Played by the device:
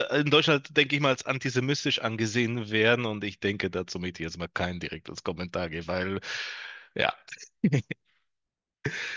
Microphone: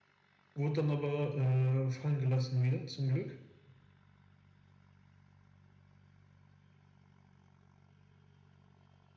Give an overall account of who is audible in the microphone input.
user only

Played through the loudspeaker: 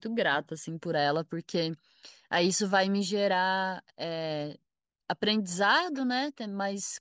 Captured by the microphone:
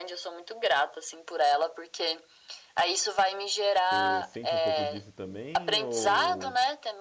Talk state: both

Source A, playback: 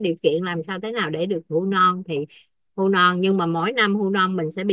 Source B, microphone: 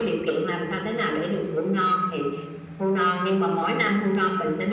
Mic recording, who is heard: echo only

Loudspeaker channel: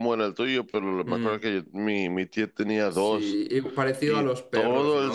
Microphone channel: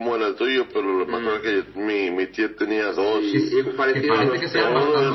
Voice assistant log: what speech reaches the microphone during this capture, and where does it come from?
both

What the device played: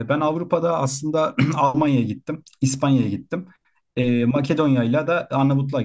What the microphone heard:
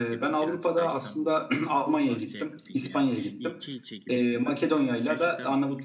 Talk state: both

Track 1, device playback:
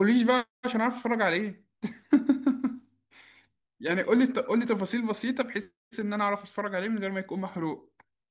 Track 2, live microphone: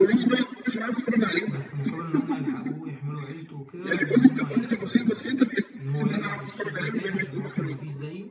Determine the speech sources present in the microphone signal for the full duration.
both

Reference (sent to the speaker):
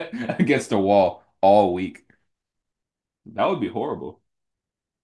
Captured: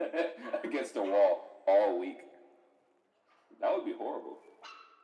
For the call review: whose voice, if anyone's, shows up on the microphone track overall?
echo only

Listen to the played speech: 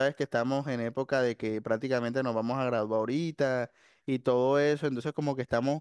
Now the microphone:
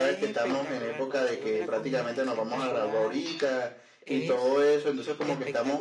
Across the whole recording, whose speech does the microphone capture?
both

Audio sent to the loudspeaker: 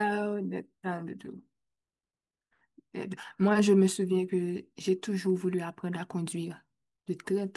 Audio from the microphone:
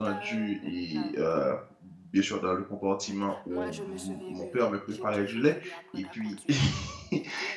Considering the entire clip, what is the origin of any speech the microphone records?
both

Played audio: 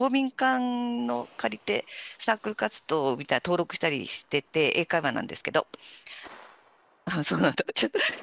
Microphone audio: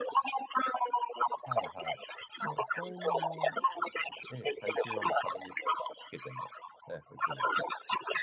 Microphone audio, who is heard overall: both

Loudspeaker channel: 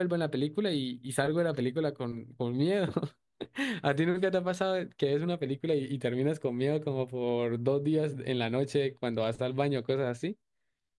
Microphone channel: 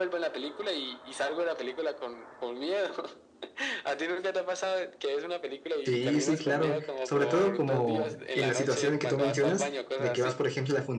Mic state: both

